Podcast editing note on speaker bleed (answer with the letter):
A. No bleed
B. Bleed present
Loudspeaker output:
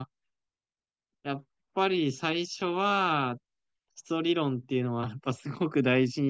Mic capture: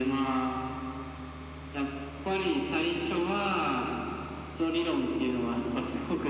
B